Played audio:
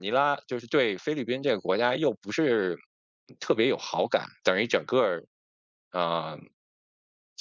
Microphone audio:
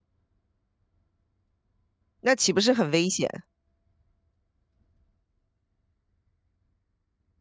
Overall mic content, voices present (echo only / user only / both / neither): user only